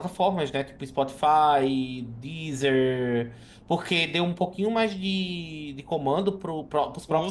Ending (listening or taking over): listening